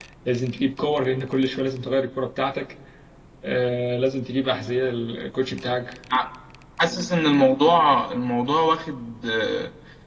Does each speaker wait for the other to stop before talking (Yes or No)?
Yes